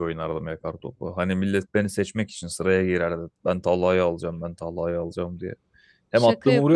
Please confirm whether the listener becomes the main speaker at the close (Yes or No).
No